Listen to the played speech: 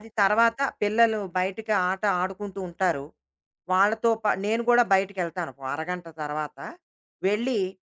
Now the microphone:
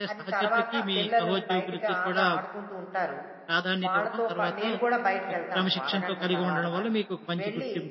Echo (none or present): present